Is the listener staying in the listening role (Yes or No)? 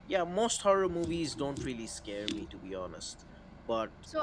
No